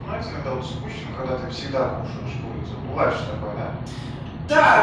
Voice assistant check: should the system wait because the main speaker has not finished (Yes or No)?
No